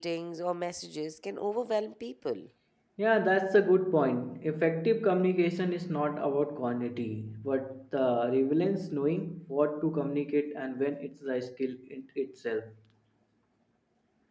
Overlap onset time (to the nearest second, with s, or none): none